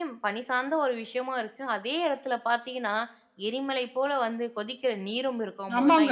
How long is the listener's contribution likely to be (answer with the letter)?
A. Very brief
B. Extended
B